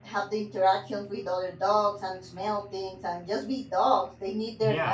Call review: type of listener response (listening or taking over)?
taking over